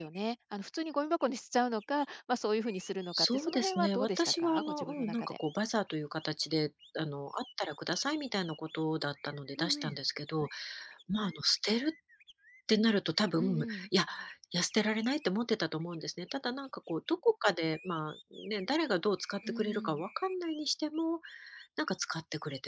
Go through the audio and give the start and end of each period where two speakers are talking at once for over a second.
3.1-5.3

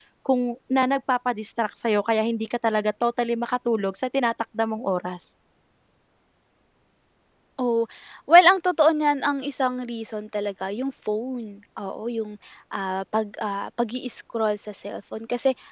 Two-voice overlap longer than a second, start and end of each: none

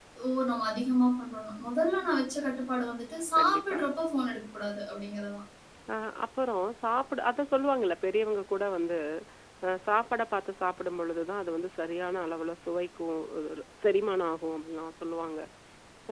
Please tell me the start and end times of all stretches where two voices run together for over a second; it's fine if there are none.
none

